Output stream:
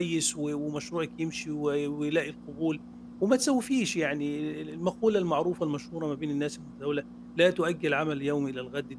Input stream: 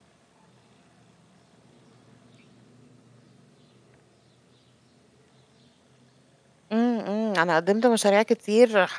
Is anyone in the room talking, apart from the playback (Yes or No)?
Yes